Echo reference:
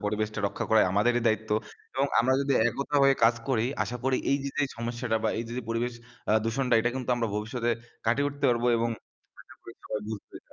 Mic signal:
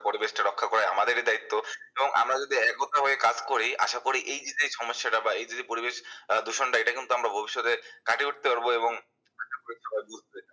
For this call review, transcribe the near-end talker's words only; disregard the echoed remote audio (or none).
none